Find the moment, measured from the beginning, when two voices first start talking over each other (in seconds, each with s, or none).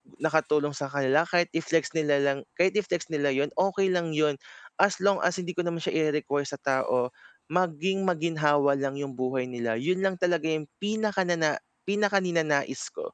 none